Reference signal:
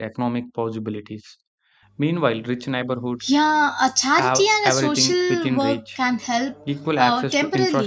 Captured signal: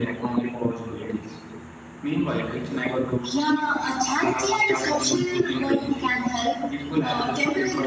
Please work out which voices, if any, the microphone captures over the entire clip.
echo only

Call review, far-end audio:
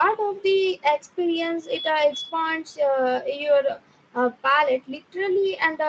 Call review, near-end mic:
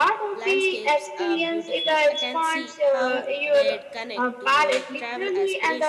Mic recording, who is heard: both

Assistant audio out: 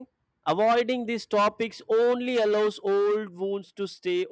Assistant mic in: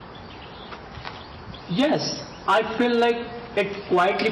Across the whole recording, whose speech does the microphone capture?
user only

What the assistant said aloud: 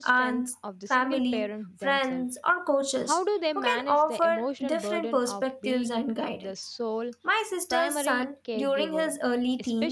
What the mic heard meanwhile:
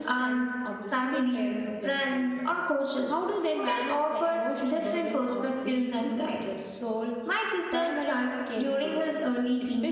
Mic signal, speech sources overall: echo only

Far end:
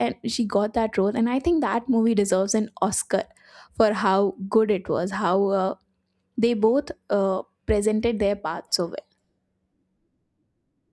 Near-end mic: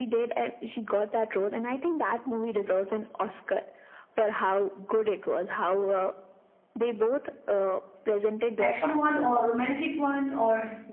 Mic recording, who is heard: both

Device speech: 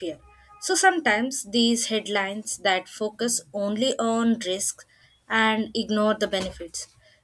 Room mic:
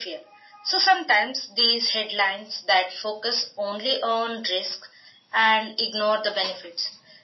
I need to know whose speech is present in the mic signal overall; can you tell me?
echo only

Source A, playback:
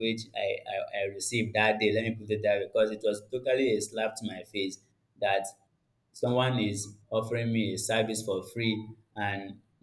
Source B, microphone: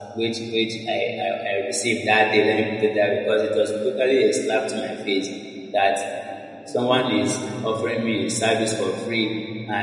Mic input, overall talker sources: both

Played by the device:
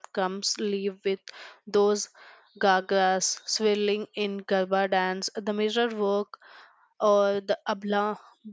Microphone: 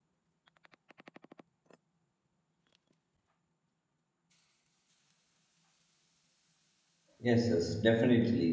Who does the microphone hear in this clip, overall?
user only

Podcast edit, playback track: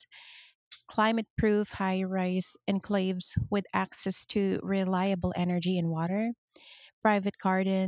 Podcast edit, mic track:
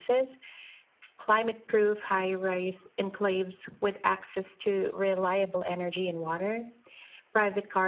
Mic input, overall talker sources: echo only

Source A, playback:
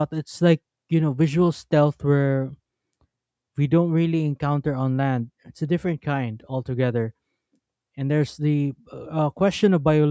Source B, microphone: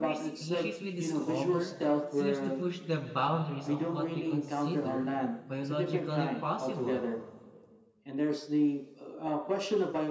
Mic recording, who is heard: both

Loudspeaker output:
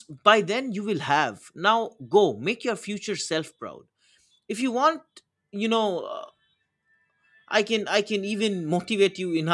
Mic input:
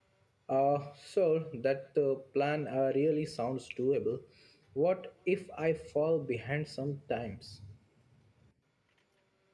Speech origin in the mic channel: user only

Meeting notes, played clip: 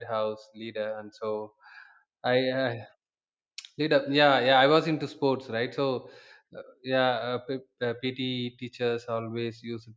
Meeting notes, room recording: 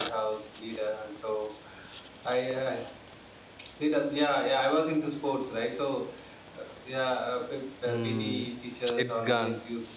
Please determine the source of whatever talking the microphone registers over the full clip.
both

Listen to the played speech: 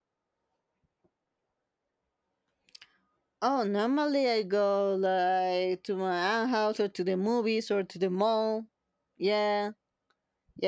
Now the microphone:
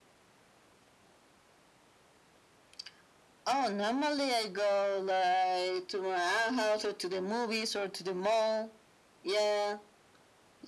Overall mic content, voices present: echo only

